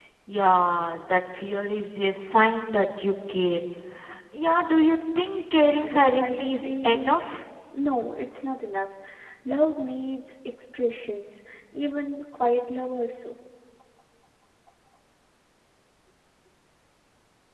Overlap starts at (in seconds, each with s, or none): 5.6 s